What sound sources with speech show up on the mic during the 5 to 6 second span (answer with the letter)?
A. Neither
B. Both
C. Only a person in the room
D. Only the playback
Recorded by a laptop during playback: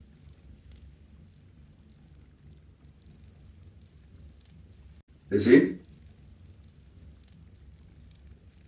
C